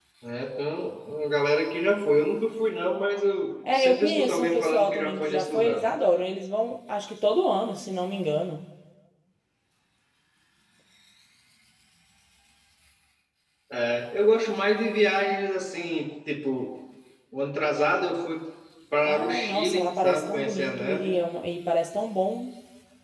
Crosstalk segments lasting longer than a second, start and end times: 3.6-5.9, 19.0-21.2

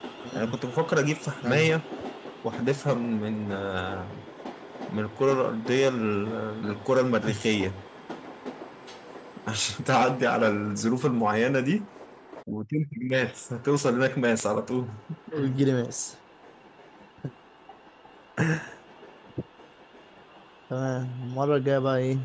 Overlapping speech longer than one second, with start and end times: none

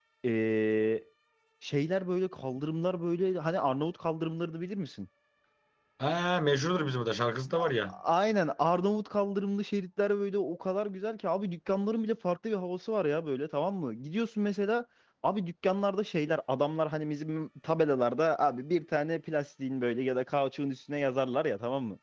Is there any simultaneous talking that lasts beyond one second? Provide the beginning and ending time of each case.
none

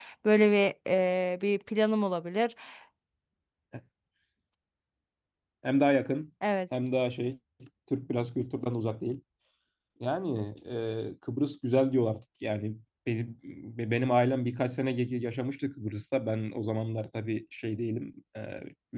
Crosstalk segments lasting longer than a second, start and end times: none

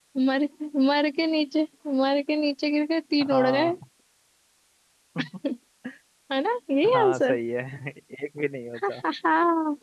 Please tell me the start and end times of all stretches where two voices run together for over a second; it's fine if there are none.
none

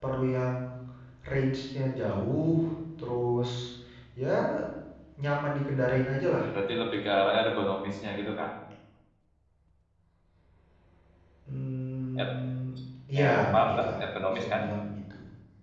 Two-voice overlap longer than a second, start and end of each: 13.1-14.6

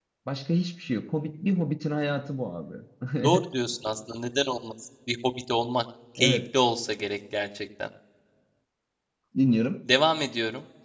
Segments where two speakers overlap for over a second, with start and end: none

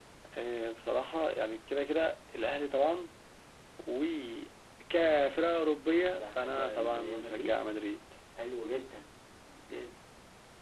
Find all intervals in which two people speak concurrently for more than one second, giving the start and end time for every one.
6.3-7.6

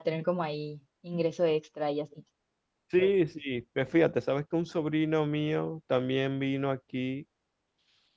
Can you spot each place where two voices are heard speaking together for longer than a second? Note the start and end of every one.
none

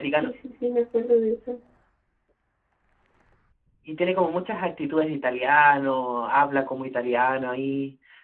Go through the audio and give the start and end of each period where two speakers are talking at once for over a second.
none

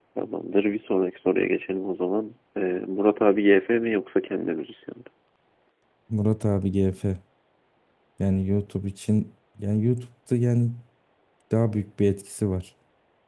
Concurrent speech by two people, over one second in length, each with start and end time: none

